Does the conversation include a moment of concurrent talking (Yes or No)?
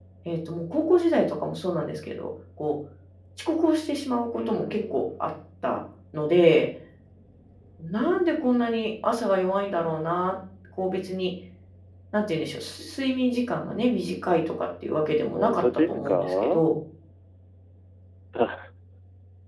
Yes